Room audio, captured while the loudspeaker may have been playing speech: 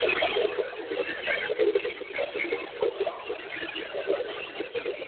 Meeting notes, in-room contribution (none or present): none